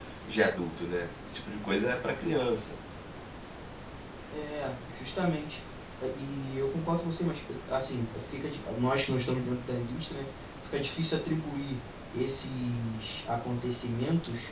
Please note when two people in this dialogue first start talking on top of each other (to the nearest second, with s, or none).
none